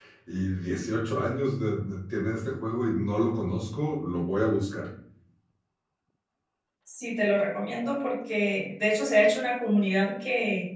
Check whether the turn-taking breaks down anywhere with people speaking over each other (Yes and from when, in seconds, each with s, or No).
No